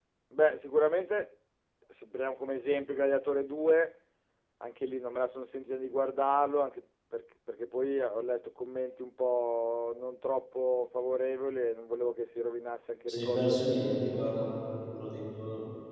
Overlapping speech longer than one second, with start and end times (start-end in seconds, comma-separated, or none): 13.1-14.4